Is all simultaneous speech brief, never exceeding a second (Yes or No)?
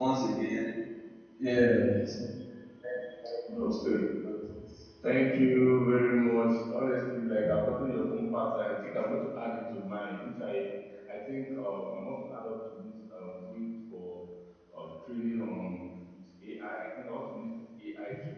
Yes